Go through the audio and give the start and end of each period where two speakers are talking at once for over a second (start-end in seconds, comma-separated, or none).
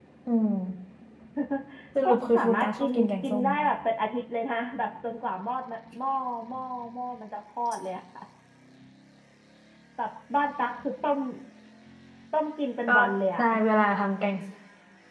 2.0-3.4